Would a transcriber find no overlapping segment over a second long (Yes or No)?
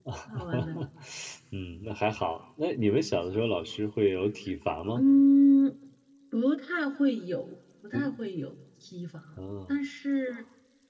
Yes